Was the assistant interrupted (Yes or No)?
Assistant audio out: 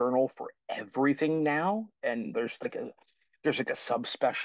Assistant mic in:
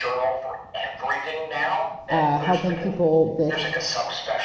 Yes